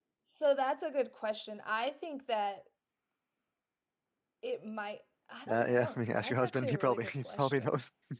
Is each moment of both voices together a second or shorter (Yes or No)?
No